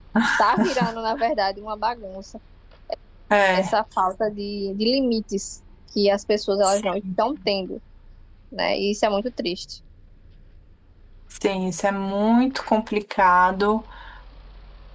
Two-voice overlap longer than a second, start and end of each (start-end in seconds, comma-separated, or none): none